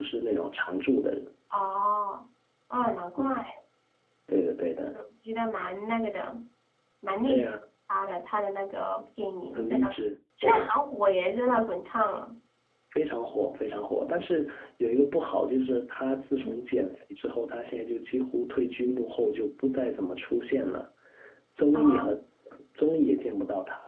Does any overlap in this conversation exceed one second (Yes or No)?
No